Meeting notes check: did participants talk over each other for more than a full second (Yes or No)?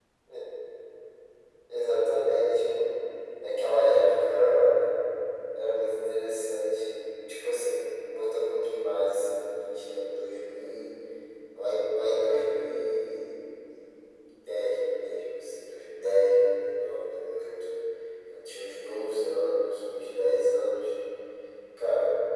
No